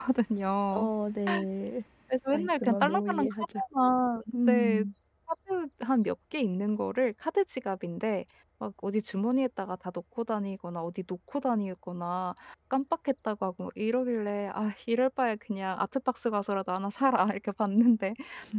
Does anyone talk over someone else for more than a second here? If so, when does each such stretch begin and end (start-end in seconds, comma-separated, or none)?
2.3-3.6